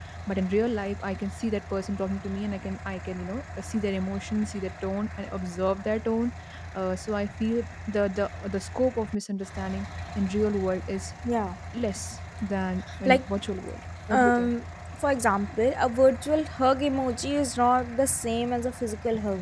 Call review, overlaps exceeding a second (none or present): none